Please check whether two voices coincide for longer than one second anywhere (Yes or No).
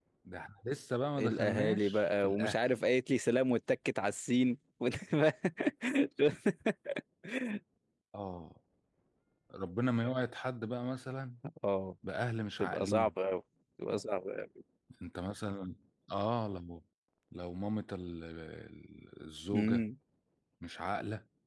Yes